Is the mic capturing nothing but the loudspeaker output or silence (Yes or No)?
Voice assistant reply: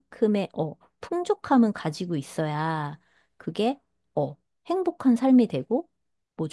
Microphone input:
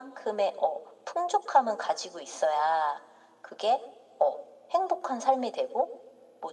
Yes